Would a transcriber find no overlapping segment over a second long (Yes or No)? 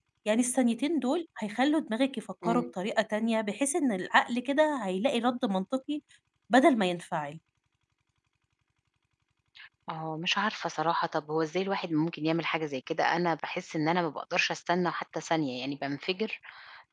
Yes